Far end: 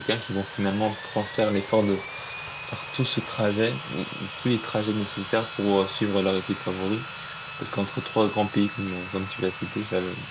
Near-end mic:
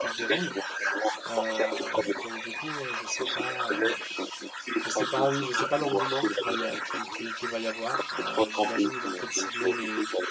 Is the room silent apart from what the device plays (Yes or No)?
No